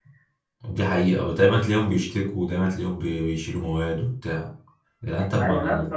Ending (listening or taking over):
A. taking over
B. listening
A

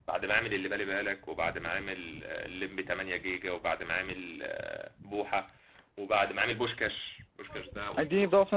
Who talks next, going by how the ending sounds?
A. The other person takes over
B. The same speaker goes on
A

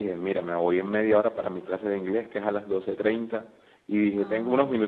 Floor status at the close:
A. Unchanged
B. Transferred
A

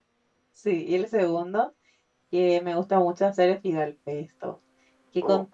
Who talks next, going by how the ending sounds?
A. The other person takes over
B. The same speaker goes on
B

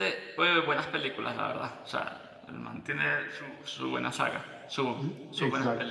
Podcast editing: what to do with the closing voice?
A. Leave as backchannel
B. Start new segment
B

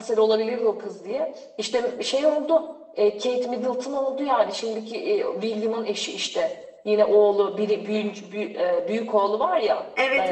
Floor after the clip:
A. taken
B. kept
A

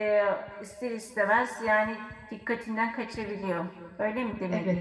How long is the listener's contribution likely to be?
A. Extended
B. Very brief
A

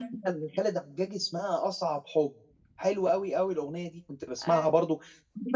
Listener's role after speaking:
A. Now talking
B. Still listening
B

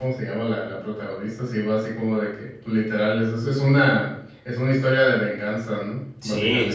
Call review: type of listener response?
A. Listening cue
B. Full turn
B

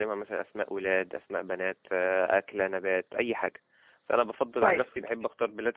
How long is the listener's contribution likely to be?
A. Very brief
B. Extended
A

